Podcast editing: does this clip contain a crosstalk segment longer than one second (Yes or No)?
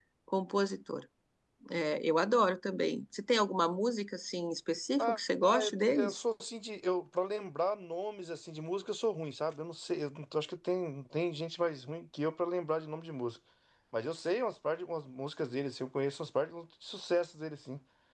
Yes